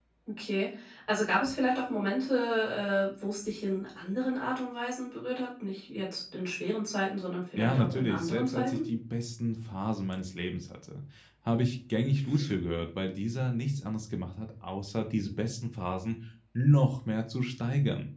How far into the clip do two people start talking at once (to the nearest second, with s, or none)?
8 s